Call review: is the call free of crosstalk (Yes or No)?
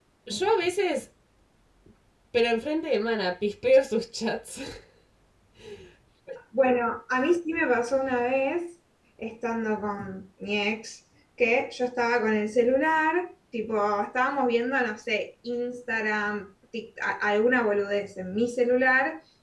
Yes